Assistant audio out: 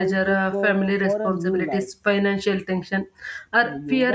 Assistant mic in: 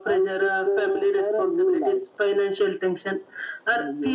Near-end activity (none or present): none